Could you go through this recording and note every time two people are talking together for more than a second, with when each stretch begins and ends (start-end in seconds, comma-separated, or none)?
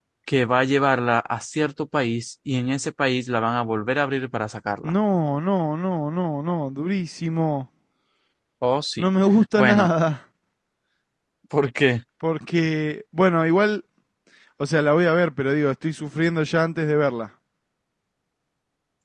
none